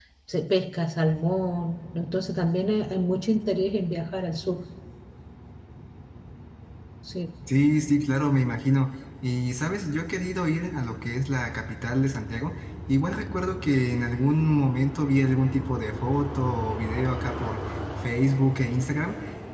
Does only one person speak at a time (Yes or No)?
Yes